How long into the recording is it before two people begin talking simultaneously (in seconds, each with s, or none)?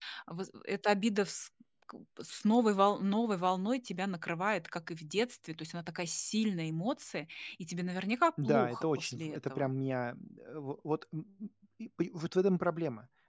8.4 s